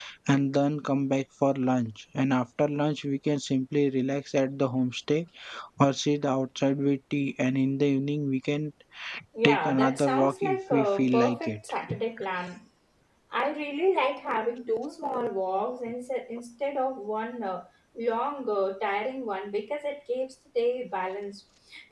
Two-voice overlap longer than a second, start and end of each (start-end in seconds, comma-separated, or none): 9.4-11.6